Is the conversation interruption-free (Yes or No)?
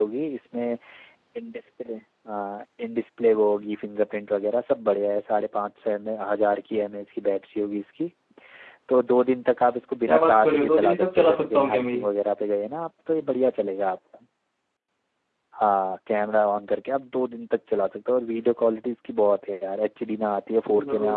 No